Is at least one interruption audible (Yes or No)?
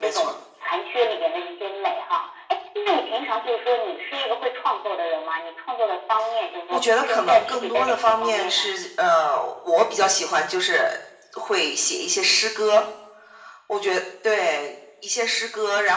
Yes